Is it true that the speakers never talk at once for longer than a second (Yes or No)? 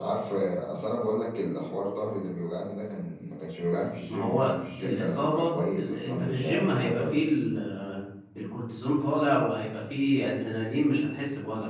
No